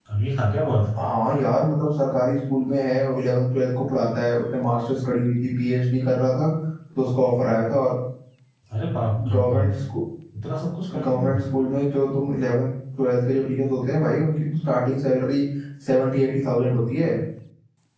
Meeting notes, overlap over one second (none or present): none